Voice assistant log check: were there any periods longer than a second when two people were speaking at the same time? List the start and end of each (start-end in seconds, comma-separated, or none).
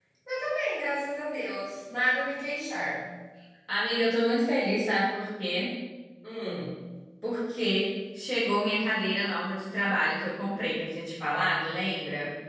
none